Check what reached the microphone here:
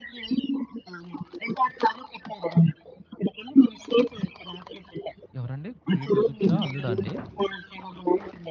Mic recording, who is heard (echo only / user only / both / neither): both